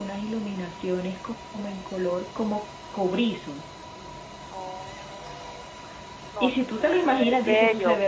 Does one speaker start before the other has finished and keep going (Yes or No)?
Yes